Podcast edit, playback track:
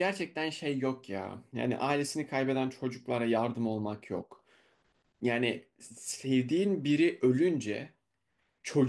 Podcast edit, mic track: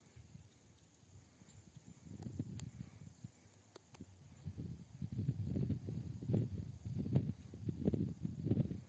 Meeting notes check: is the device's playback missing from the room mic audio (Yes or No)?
Yes